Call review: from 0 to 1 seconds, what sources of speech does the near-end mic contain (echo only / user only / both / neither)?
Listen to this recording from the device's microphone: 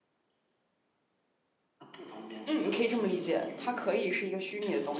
neither